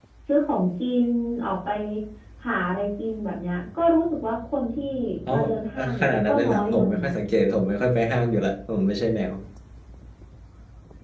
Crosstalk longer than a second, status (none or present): present